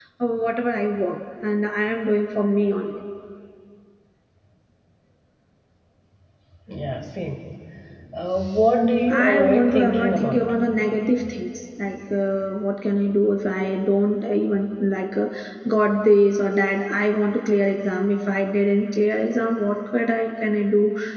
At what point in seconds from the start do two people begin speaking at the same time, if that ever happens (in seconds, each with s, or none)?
9.1 s